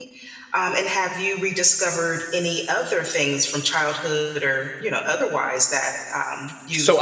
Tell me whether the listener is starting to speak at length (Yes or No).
Yes